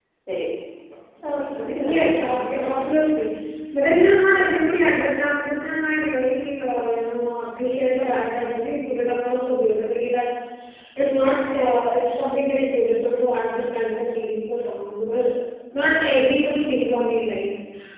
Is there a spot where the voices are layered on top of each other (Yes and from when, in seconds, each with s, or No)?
Yes, from 1.7 s